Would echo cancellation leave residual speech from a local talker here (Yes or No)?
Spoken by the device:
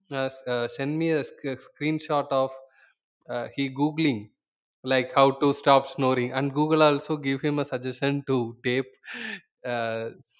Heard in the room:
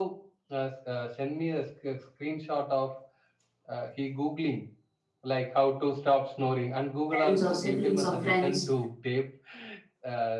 Yes